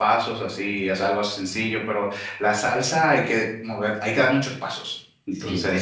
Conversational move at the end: taking over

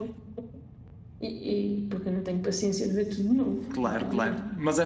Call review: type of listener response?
taking over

